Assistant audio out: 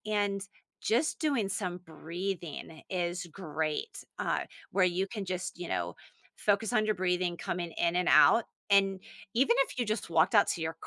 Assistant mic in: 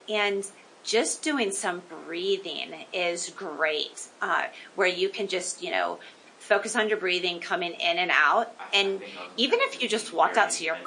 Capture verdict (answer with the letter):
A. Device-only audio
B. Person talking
B